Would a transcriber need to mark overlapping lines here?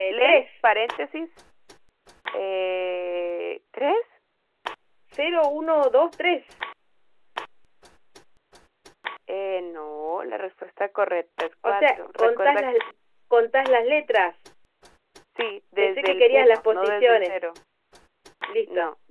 Yes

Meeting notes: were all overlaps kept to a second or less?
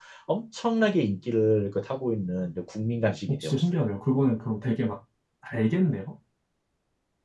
Yes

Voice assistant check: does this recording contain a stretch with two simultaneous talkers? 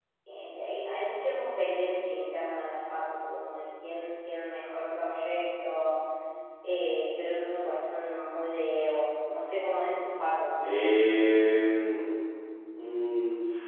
No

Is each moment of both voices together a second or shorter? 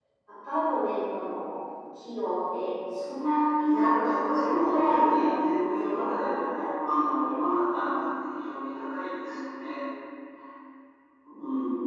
No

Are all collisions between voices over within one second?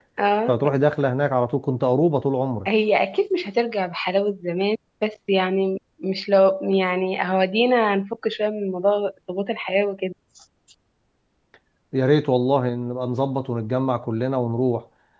Yes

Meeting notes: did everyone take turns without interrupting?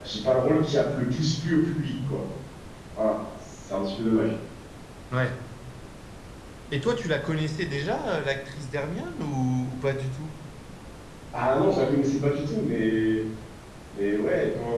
Yes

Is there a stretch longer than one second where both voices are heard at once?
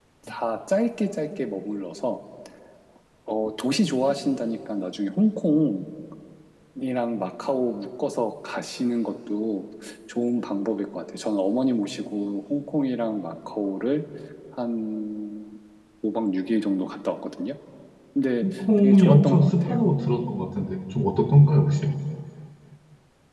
Yes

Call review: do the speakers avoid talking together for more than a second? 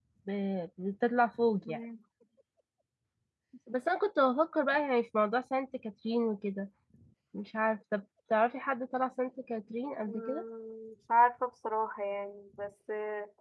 Yes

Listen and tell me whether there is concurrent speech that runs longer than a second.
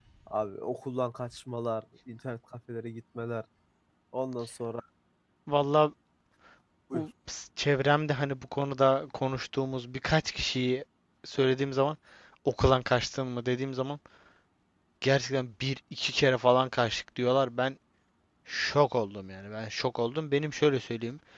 No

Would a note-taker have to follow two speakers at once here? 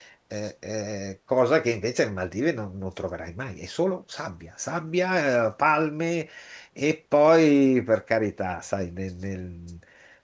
No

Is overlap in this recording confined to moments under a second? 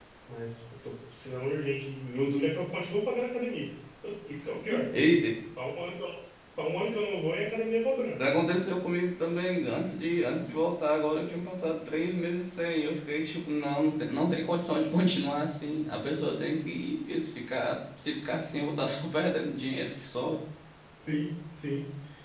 Yes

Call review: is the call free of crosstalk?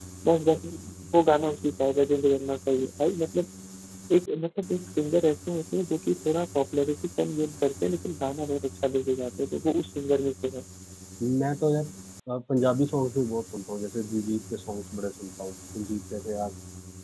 Yes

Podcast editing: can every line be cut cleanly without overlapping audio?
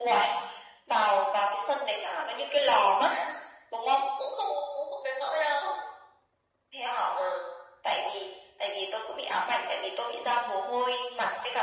Yes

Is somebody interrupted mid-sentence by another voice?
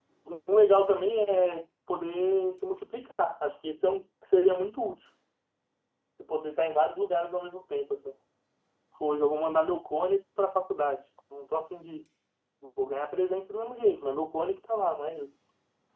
No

